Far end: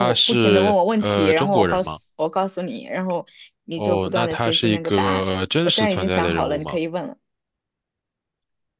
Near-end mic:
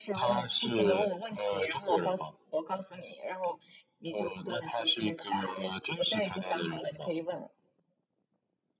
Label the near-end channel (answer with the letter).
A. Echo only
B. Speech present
A